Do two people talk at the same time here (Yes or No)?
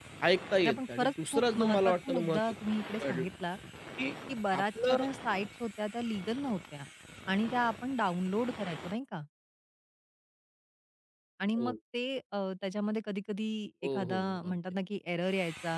Yes